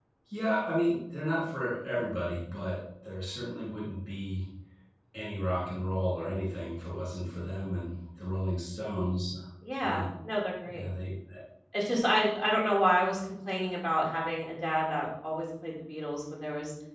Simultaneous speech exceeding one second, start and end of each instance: none

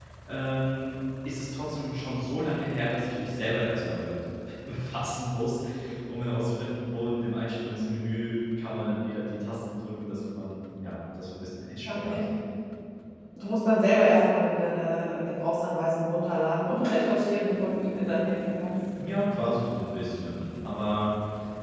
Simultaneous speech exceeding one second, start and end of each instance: none

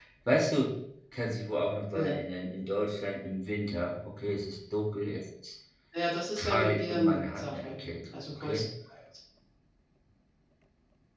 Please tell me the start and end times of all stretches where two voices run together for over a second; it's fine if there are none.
6.4-8.6

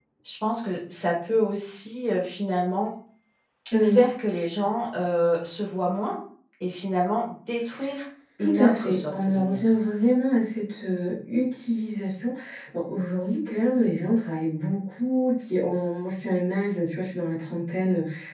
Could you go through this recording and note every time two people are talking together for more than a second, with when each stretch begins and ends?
8.4-9.6

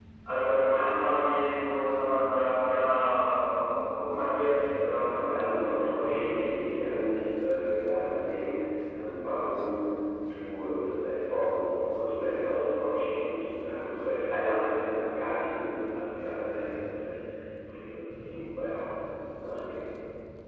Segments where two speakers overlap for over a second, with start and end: 4.8-6.3

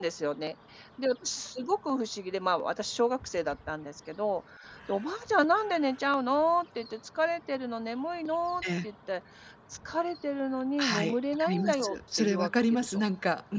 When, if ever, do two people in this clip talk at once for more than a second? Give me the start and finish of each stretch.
10.8-13.0

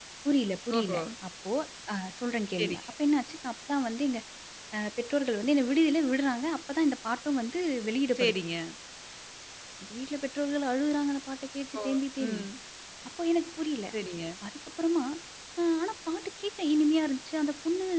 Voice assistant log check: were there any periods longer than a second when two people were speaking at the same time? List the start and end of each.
none

